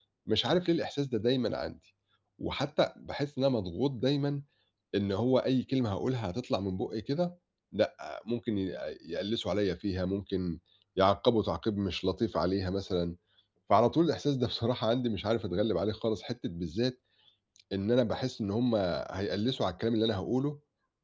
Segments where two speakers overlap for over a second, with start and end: none

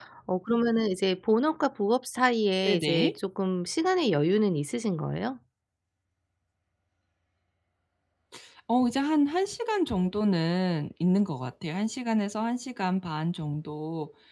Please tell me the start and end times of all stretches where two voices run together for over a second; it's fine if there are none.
none

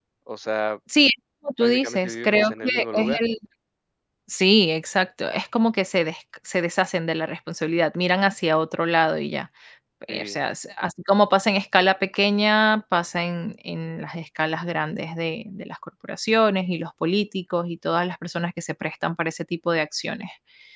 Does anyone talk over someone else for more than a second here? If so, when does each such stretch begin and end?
1.6-3.1

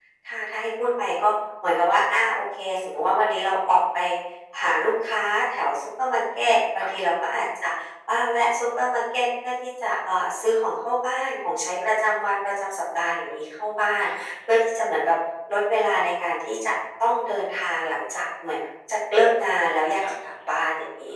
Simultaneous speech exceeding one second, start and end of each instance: none

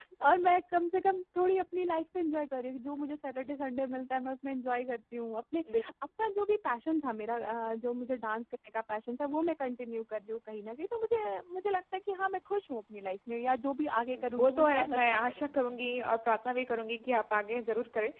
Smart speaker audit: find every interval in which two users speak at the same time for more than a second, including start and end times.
14.4-15.9

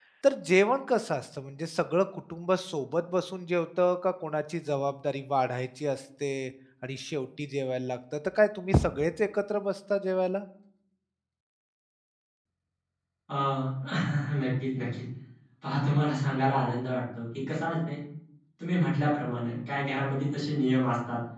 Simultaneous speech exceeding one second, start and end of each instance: none

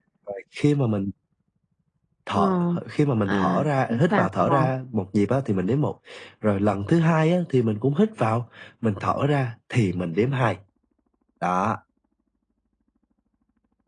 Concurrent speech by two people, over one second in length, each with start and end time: 3.3-4.7

